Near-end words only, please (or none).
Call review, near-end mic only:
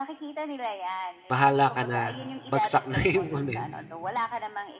bahala ka na bagsak na yun ulit.